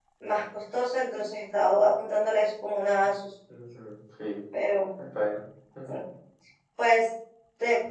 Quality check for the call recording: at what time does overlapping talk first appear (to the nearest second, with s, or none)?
none